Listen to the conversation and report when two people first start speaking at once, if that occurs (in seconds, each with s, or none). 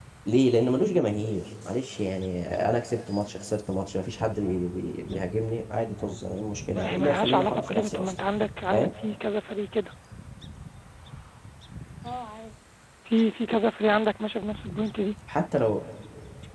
6.7 s